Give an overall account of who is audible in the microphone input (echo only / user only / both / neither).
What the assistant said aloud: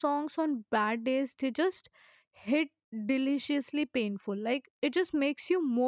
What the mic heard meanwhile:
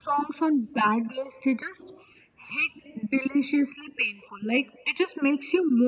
echo only